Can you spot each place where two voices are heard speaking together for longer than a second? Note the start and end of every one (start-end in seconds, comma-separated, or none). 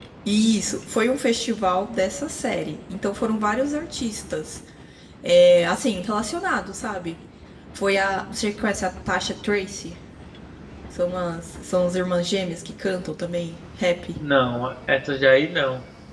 none